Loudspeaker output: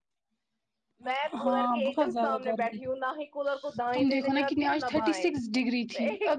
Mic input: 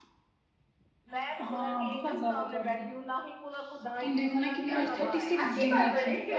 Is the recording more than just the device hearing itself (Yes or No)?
Yes